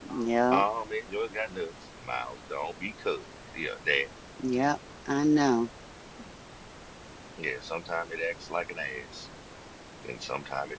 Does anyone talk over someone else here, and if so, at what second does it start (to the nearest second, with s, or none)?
none